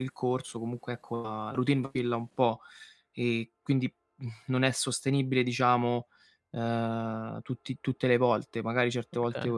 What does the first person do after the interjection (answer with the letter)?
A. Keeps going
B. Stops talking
A